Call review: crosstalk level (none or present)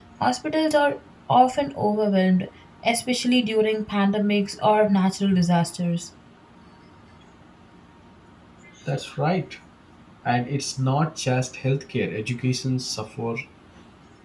none